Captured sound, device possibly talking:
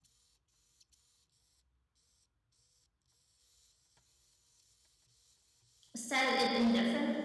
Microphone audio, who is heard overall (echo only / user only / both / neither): user only